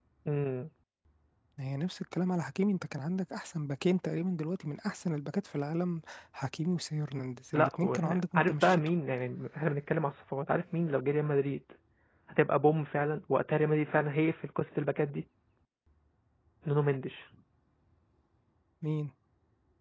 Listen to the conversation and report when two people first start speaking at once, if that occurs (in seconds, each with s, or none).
7.5 s